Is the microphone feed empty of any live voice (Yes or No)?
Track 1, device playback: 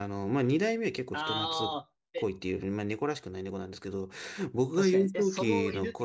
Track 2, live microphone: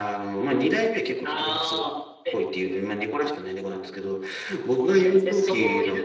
Yes